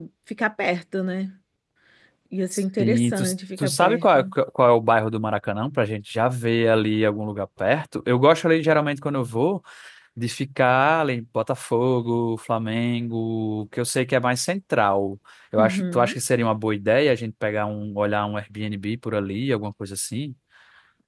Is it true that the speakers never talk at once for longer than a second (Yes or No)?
No